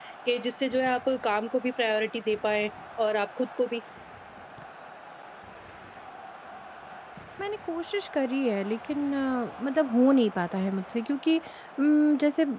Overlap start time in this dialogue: none

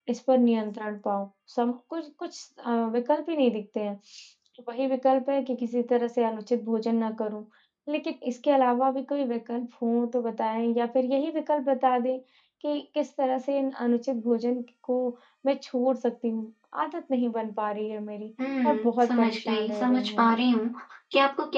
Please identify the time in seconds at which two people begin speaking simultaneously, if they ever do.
18.4 s

